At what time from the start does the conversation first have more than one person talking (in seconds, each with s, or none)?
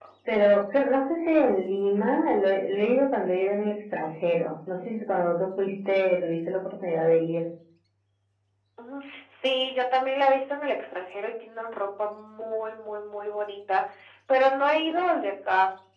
none